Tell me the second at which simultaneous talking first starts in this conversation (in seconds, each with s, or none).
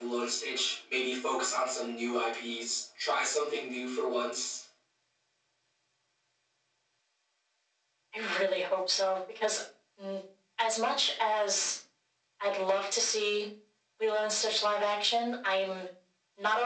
none